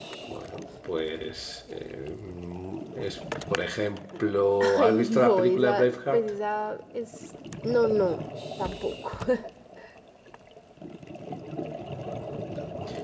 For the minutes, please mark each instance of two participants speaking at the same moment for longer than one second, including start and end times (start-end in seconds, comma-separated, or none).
4.6-6.3